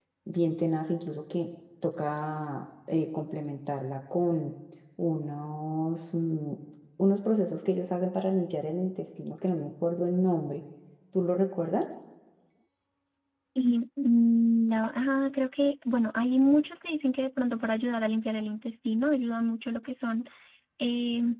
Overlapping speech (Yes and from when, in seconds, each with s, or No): No